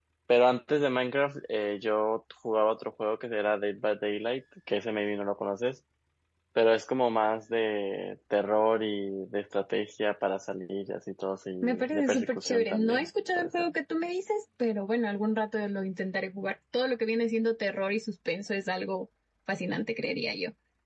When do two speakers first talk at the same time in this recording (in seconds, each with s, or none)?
11.6 s